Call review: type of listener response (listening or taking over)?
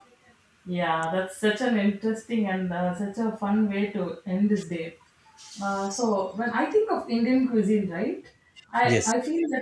listening